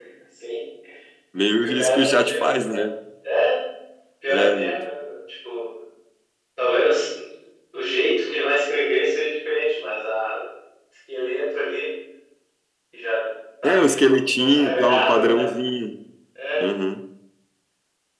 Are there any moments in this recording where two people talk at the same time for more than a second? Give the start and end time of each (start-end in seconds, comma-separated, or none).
1.6-2.9, 13.6-15.4